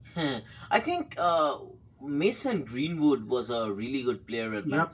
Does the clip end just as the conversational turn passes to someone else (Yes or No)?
Yes